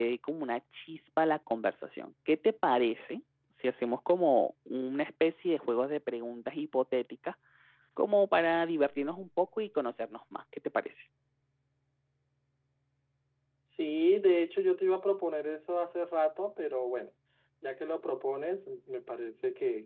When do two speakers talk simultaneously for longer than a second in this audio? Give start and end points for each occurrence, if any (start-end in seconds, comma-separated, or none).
none